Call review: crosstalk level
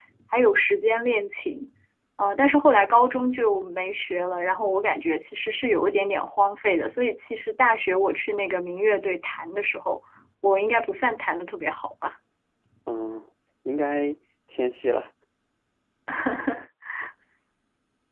none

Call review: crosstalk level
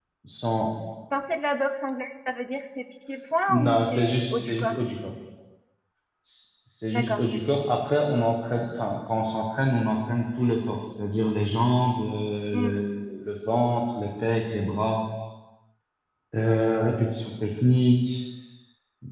present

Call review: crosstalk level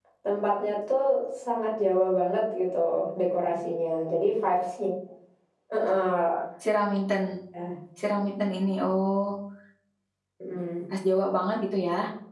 none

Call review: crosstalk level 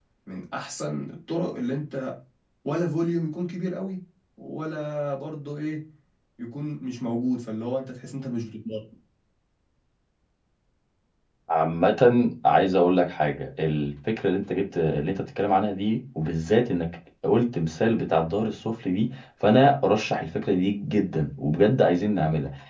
none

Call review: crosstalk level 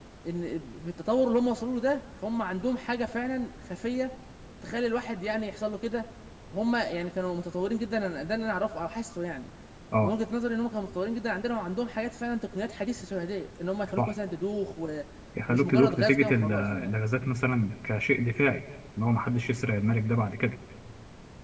present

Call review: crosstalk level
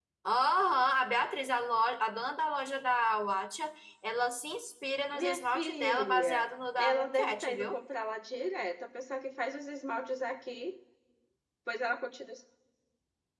present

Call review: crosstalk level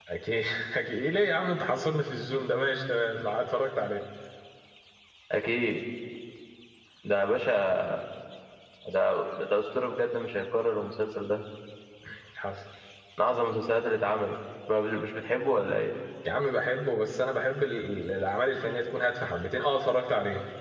none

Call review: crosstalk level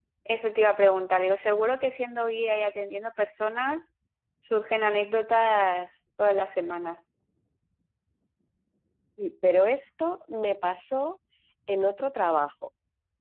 none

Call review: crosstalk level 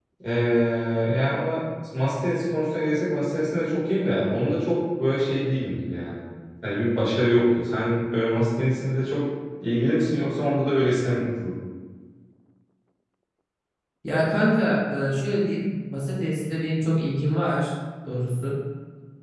none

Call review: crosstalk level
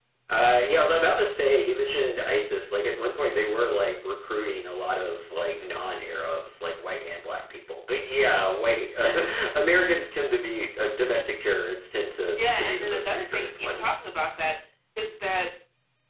present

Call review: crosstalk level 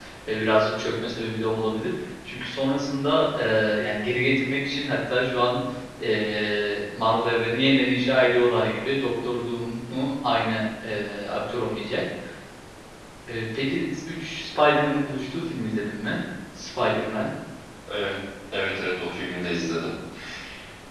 none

